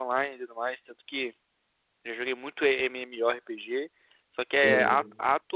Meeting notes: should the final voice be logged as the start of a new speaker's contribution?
No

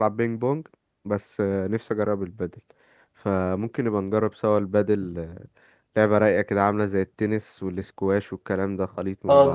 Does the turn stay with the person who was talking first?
No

